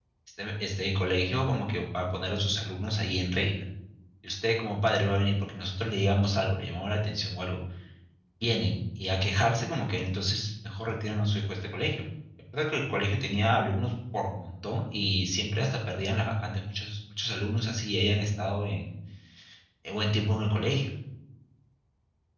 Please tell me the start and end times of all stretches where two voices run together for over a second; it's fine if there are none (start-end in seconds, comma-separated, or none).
none